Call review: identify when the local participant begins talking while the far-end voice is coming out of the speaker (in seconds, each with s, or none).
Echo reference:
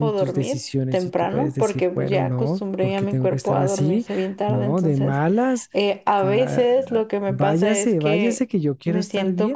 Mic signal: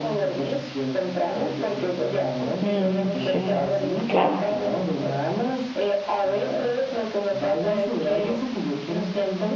2.6 s